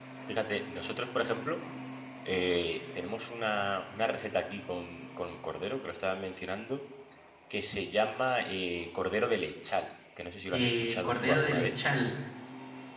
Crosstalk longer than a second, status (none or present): present